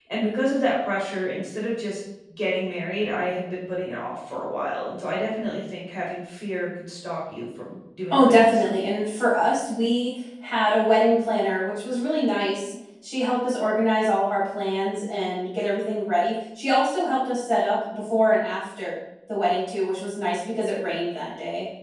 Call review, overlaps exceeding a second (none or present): none